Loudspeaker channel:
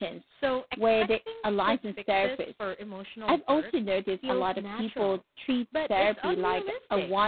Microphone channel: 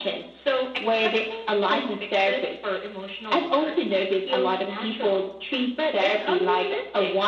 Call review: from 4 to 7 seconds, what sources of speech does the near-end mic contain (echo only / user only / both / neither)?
echo only